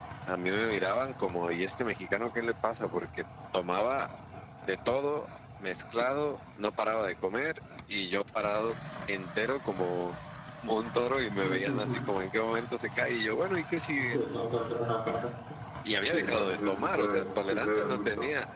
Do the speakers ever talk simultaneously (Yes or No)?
Yes